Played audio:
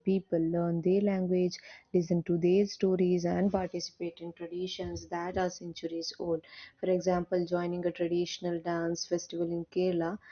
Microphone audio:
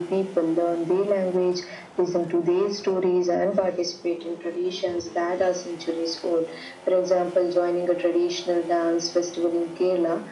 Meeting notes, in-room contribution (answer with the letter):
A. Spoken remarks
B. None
B